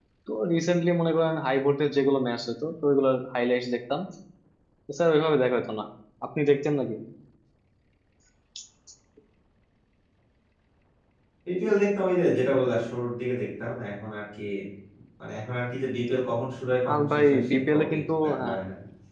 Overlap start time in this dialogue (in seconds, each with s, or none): 16.9 s